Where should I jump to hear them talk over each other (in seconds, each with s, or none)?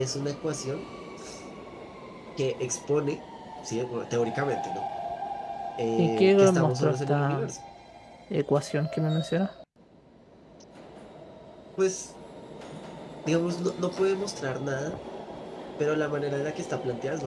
6.0 s